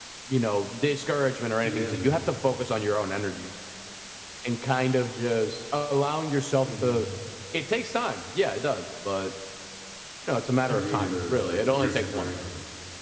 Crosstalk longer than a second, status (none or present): present